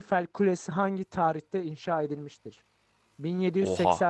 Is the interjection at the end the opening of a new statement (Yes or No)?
No